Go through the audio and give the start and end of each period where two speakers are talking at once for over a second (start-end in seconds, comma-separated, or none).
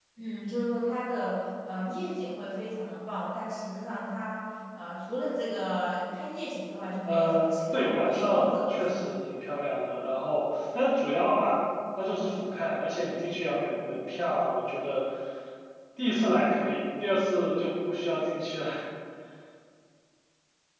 7.0-9.1